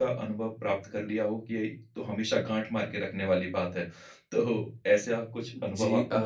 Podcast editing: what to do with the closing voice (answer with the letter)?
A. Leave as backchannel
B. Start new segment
B